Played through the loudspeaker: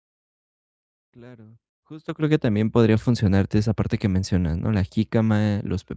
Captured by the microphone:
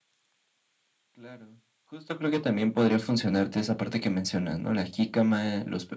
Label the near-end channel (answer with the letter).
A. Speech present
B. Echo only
B